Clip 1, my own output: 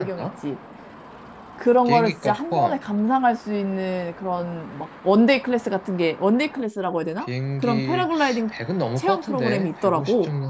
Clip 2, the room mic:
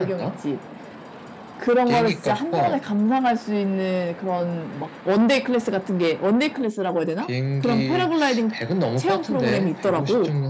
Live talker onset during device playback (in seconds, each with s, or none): none